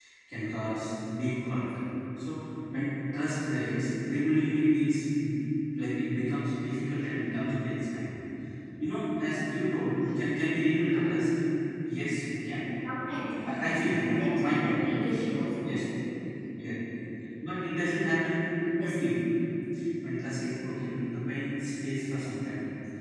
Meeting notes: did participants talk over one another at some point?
Yes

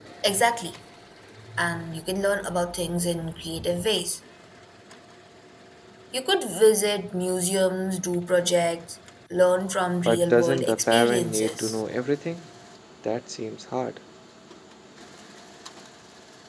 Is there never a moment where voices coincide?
No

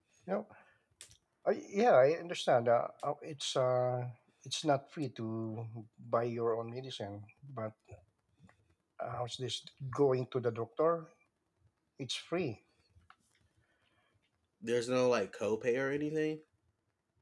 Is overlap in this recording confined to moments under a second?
Yes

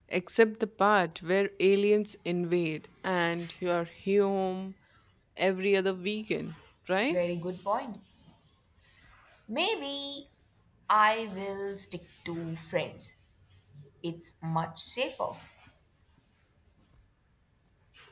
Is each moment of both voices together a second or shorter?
Yes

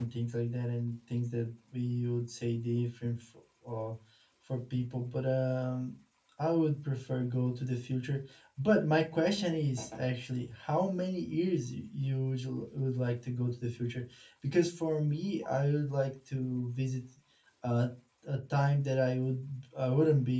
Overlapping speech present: No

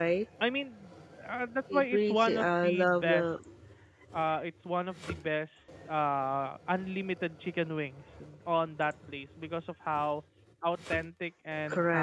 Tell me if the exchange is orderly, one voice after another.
No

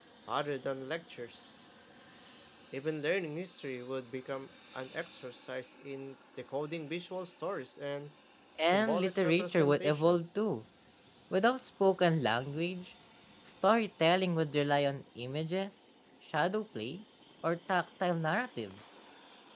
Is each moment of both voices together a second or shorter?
No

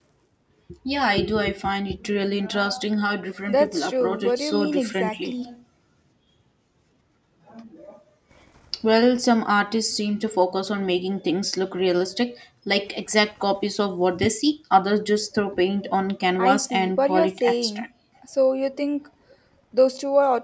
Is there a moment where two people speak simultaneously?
Yes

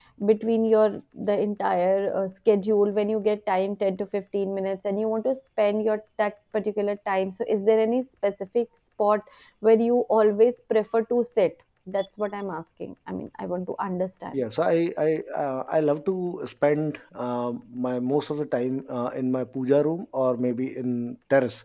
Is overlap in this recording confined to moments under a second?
Yes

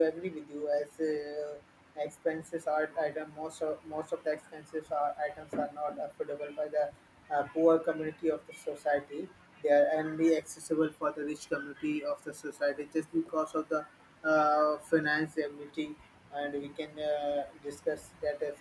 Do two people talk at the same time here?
No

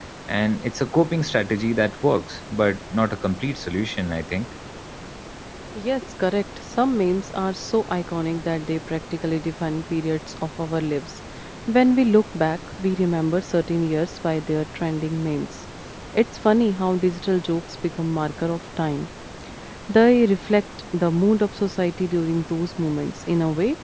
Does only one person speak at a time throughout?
Yes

